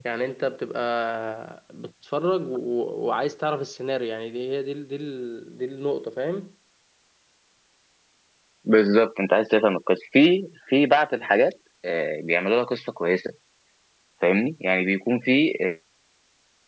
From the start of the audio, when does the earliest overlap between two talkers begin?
none

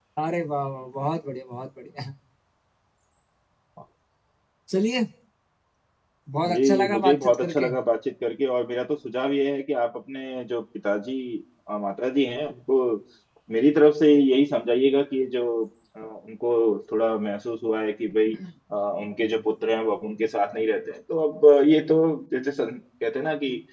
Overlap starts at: 6.4 s

